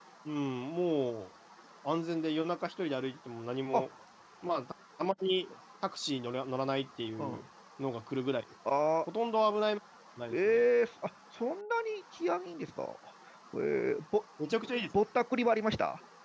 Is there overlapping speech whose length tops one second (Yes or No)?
No